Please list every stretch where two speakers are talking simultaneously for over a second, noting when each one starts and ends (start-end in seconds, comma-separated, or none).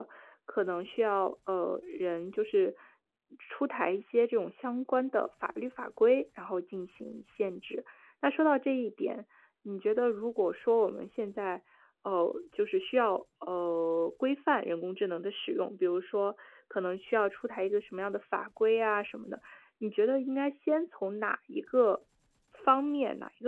none